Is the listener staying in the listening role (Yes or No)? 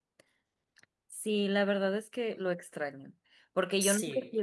Yes